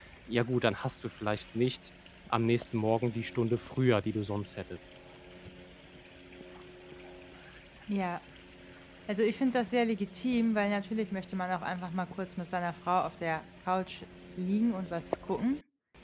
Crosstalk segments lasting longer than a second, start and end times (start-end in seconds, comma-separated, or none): none